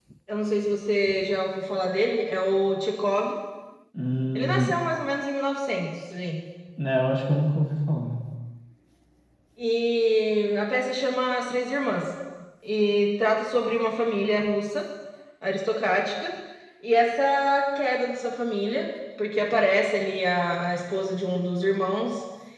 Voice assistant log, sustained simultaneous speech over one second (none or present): none